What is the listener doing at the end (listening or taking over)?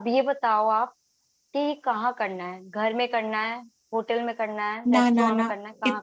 taking over